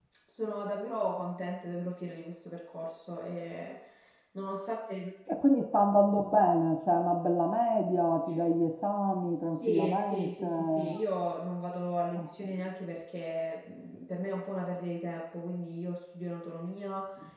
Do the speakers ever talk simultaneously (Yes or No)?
Yes